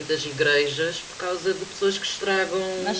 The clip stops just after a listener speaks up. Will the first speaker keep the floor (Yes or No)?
No